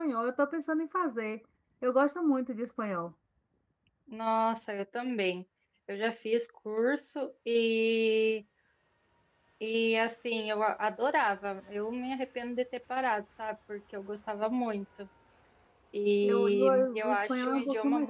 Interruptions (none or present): present